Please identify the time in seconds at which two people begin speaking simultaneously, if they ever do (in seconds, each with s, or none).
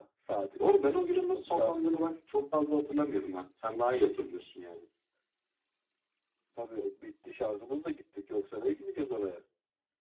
0.6 s